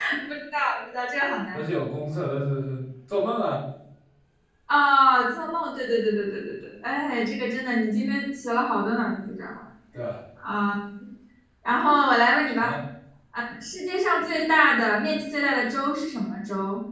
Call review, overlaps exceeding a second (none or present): none